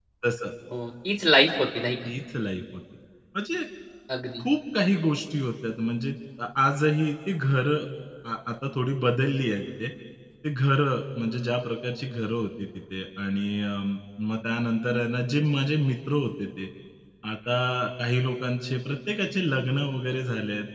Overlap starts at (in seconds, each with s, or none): none